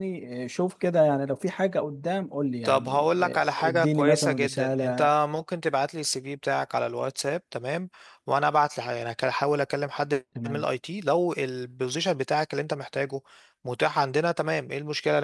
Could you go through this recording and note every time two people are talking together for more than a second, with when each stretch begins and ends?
2.6-5.1

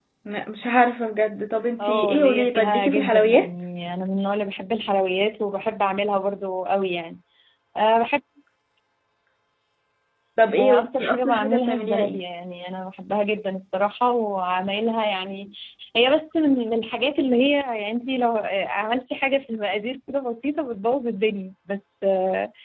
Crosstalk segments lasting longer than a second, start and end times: 1.8-3.5, 10.6-12.2

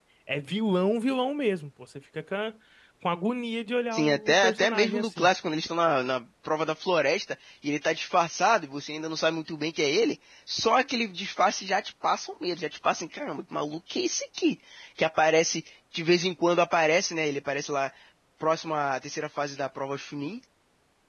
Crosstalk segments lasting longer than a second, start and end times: 3.9-5.3

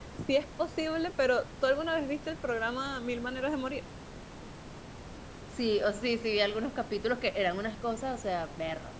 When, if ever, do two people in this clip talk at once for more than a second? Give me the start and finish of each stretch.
none

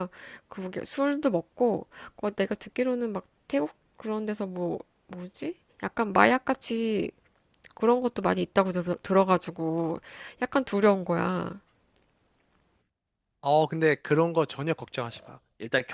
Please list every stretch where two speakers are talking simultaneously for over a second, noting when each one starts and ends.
none

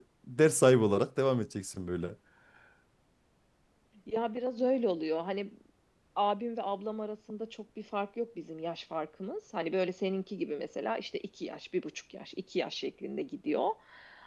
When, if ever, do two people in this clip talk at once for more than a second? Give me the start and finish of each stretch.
none

